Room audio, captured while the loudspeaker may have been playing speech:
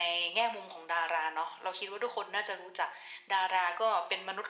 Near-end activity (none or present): none